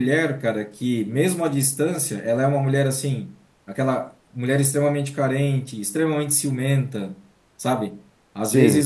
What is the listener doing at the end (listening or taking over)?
listening